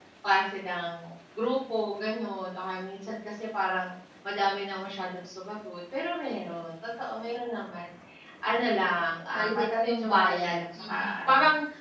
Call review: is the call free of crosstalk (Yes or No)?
No